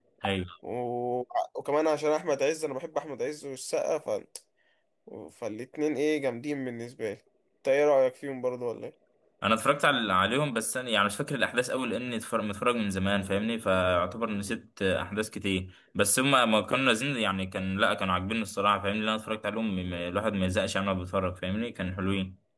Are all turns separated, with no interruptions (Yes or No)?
Yes